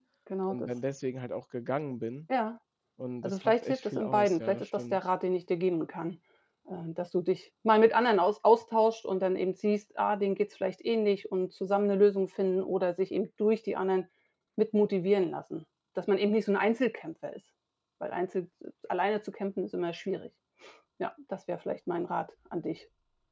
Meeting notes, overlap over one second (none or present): present